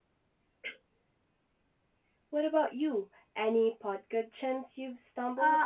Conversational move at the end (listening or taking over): taking over